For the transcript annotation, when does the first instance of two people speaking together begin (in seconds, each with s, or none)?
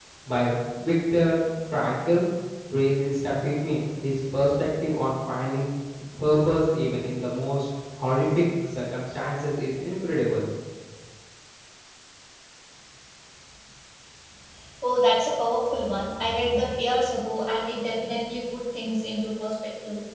none